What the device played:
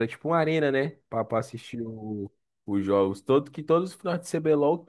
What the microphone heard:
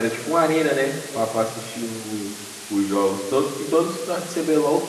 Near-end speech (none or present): none